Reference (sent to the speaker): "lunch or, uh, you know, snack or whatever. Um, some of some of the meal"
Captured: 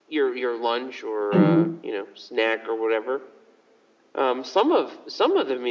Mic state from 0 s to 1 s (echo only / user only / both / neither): echo only